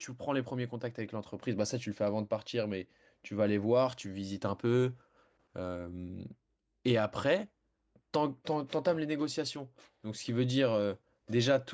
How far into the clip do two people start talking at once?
none

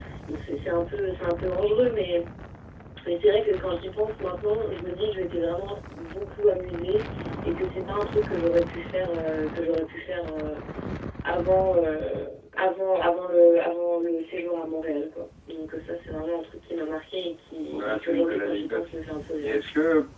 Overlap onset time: 17.7 s

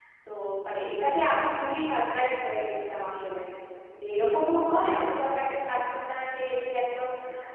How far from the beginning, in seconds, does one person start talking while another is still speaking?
none

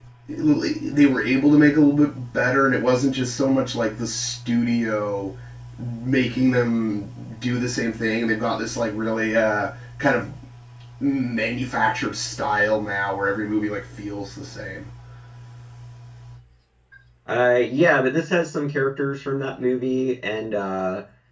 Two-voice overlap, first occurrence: none

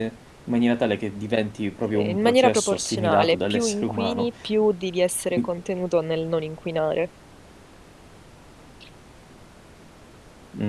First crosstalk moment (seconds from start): 1.9 s

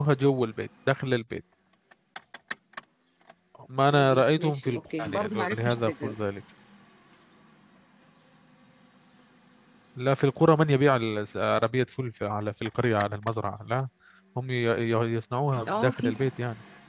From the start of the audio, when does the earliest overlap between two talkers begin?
3.9 s

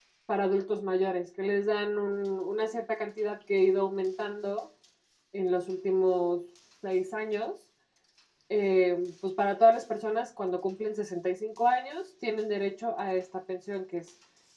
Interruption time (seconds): none

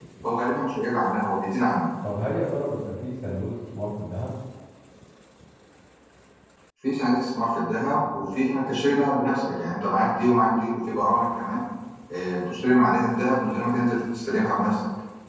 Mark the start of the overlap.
none

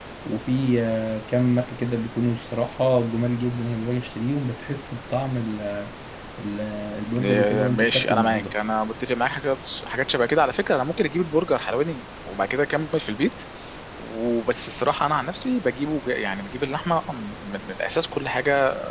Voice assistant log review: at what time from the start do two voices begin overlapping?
7.2 s

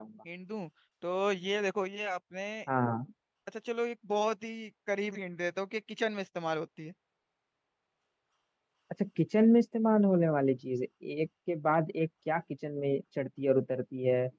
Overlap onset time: none

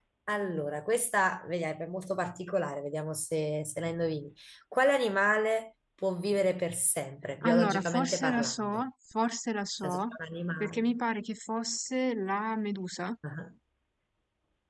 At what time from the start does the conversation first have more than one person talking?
7.4 s

